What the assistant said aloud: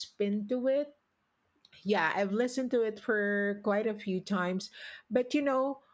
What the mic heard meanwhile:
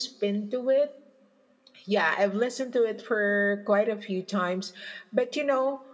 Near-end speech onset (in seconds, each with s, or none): none